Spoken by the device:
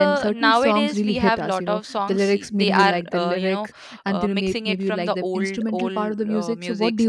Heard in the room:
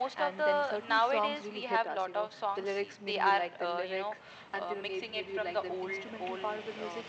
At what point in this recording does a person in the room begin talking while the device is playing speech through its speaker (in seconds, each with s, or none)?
none